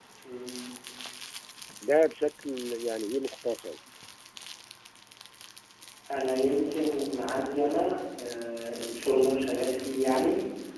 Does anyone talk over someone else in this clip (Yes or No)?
No